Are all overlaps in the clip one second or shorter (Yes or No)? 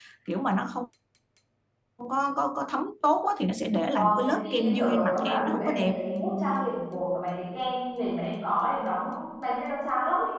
No